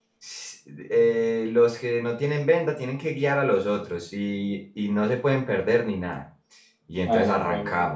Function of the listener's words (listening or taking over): listening